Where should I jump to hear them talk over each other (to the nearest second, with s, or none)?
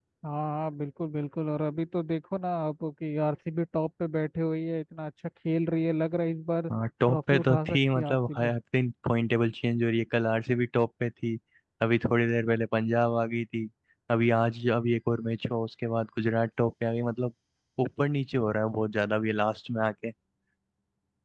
7 s